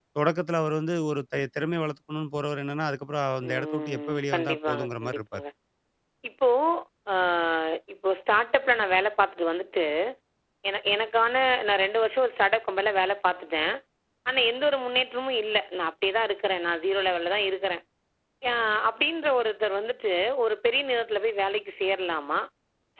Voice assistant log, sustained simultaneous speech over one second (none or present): present